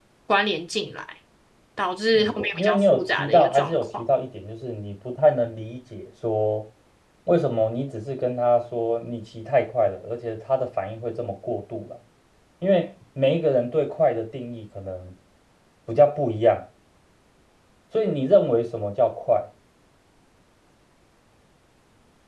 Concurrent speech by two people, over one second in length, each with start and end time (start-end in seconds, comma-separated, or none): 2.1-3.8